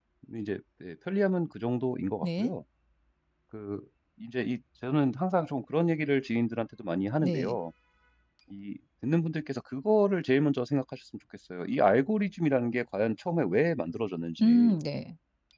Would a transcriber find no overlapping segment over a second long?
Yes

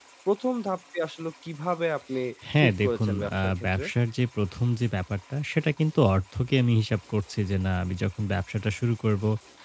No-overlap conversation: No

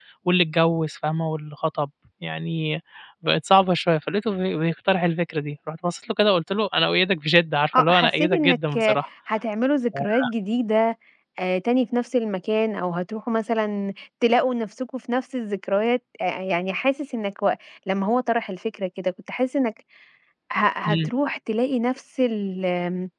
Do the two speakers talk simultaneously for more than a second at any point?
Yes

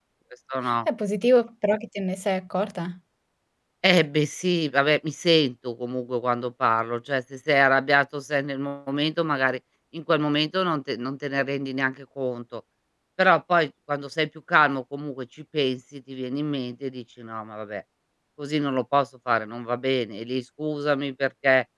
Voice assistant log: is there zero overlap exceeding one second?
Yes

